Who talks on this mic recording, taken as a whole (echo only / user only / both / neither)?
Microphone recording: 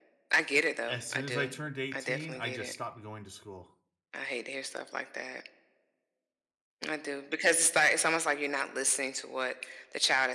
both